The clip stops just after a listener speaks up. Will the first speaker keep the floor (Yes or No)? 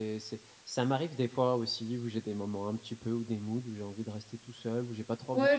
No